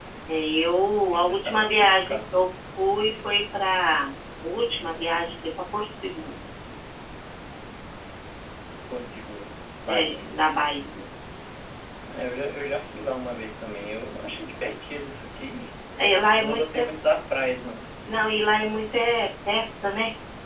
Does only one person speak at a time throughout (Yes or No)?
No